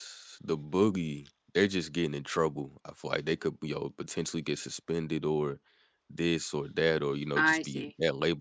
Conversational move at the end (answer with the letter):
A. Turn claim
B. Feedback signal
B